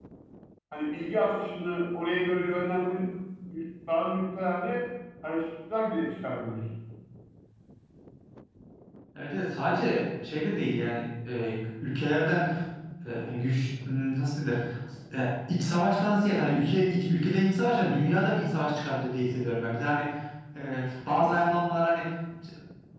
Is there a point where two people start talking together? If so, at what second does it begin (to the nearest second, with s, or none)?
none